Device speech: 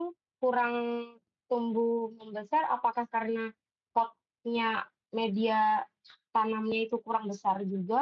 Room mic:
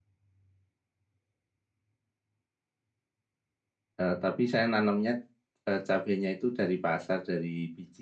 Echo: none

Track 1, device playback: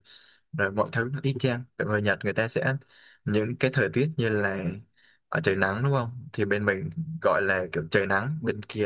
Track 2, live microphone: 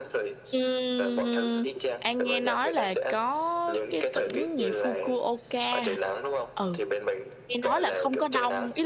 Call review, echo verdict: present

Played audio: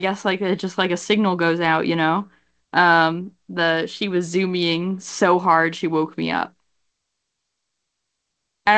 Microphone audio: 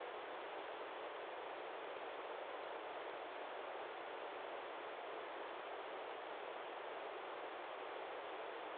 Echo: none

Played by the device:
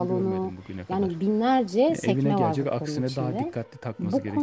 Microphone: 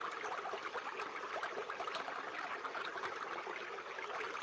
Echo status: none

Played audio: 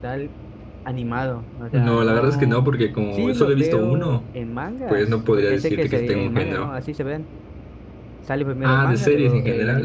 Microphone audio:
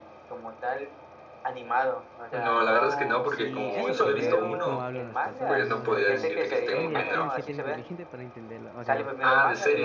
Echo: present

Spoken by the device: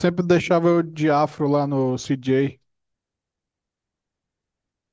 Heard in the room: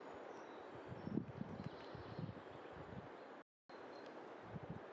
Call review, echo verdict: none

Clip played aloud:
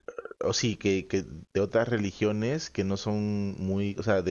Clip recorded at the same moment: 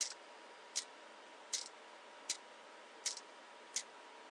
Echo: none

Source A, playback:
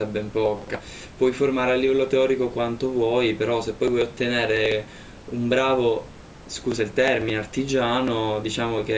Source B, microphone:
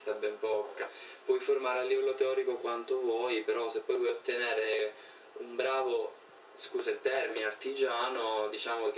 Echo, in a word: present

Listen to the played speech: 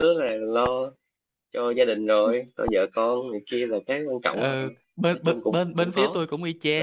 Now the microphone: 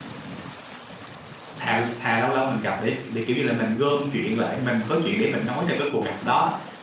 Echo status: none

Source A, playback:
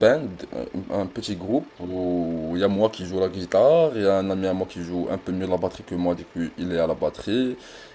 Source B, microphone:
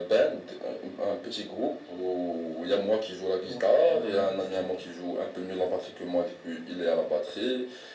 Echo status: present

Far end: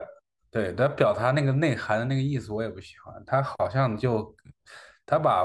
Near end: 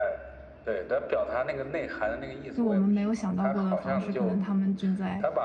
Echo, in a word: present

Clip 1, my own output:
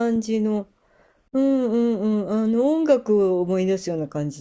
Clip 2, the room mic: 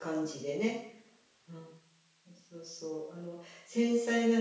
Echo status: none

